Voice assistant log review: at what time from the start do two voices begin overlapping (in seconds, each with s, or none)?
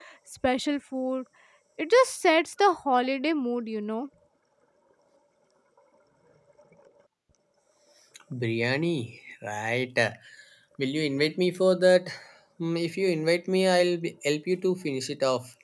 none